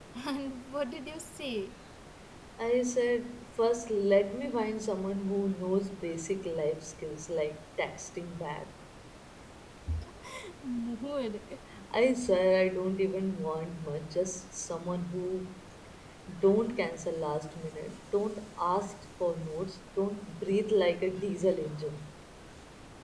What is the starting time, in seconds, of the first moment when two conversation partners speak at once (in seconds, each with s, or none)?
none